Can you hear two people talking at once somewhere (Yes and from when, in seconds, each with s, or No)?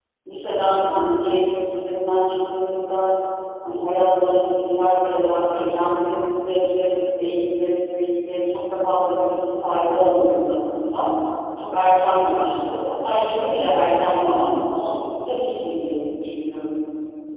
No